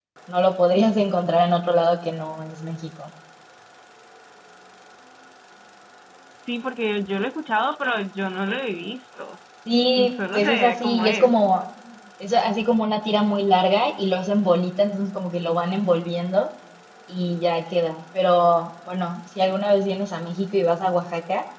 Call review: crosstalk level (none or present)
present